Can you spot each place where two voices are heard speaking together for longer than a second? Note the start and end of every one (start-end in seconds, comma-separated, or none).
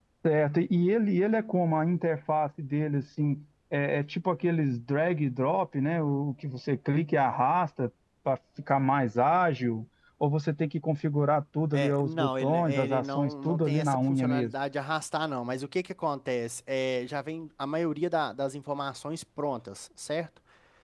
11.7-14.5